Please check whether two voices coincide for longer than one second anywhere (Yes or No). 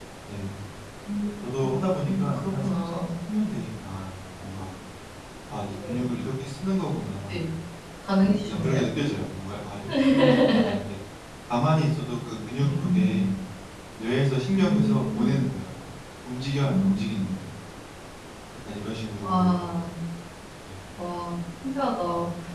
Yes